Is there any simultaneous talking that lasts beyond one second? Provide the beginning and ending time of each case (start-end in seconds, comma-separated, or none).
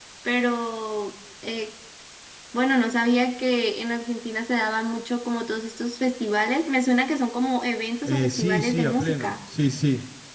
8.0-9.4